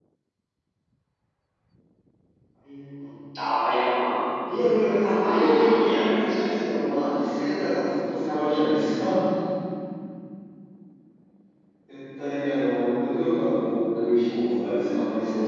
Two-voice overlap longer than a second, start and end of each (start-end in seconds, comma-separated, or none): 4.8-6.7